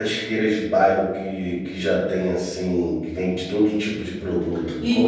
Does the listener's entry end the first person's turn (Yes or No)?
Yes